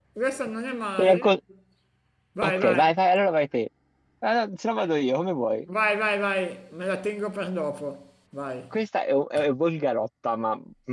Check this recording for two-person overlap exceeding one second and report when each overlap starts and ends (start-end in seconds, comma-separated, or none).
none